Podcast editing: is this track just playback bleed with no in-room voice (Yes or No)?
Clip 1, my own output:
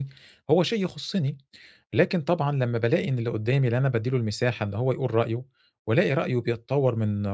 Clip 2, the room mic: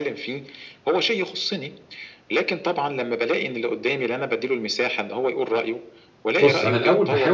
No